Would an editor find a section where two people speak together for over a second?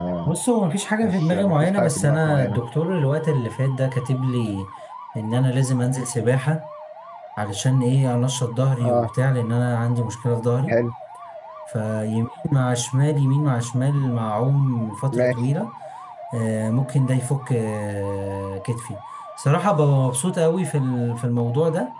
Yes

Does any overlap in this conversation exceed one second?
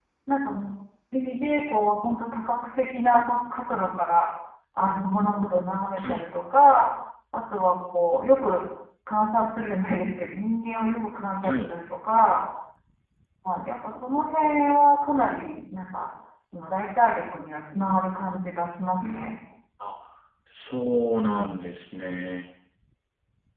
No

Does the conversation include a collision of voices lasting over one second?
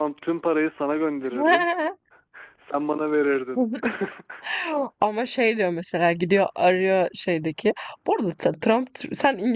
No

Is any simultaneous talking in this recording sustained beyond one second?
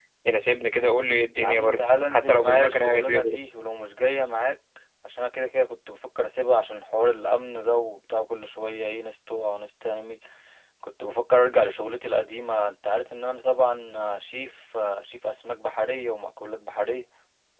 Yes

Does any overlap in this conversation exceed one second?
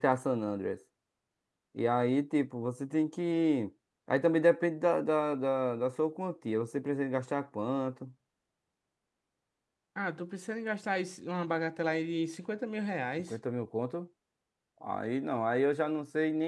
No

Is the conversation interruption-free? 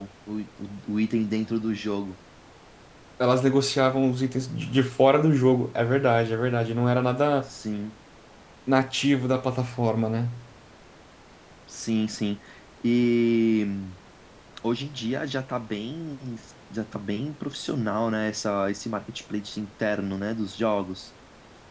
Yes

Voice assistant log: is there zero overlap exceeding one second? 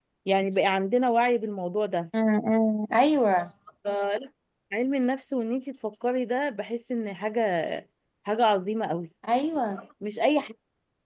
Yes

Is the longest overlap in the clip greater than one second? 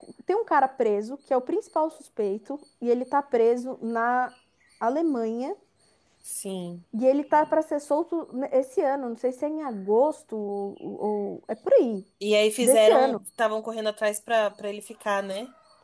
No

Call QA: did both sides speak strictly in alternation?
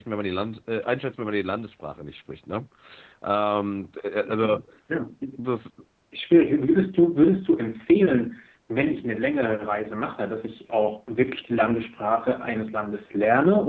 Yes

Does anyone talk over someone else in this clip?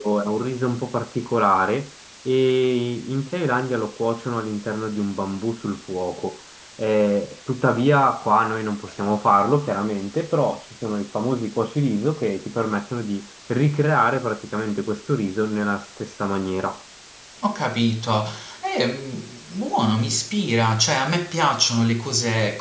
No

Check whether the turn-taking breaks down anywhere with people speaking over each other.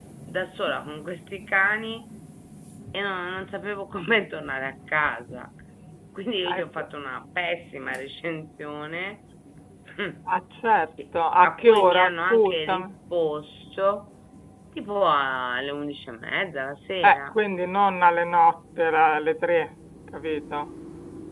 Yes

